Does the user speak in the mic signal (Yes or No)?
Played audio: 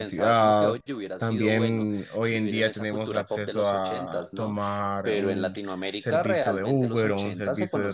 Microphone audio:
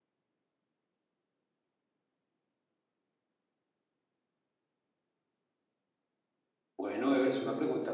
Yes